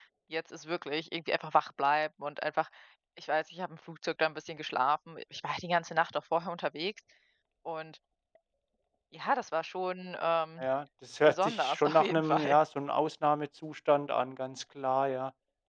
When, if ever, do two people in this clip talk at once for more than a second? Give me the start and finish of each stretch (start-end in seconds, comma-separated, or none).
11.3-12.6